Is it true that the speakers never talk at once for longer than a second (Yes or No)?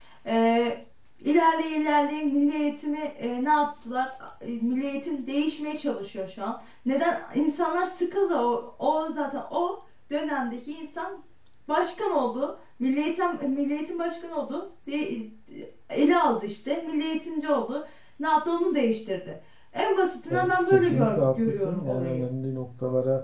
No